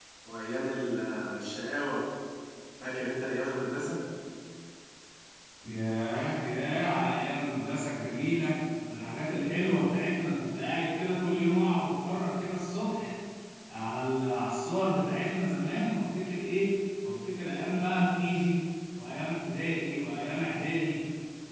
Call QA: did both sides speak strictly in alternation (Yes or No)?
Yes